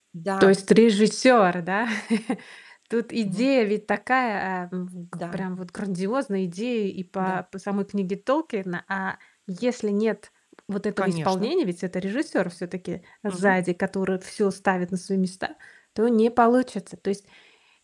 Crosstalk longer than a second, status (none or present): none